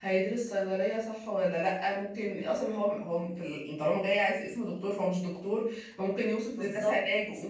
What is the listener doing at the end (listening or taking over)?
listening